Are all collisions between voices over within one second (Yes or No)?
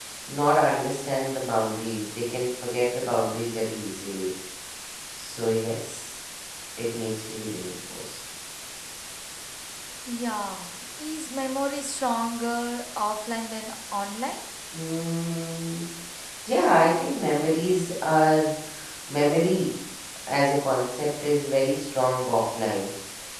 Yes